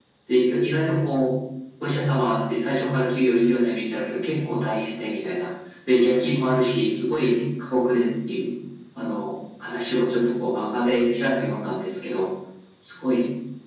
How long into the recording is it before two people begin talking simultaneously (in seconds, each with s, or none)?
none